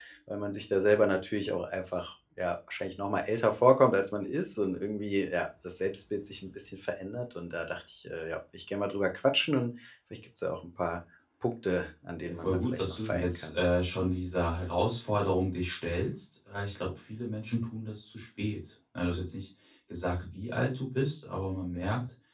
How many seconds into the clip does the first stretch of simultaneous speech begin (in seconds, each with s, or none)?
12.3 s